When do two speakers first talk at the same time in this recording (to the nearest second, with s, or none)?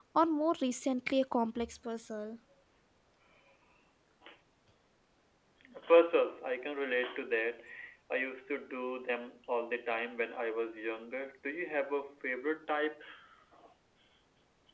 none